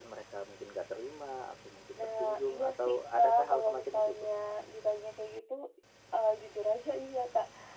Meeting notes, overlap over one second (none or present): present